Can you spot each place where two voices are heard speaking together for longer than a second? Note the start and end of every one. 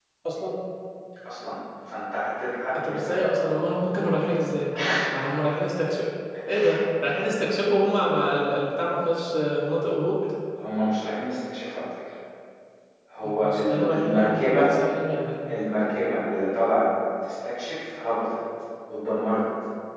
13.2-14.7

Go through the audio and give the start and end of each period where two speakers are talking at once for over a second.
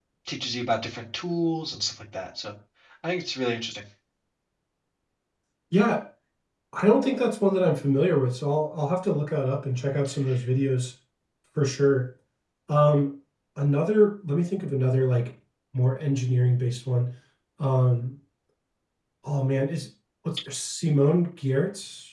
none

